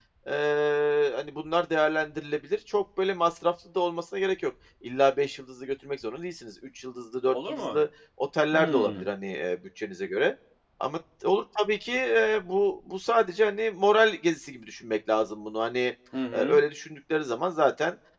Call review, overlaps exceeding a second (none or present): none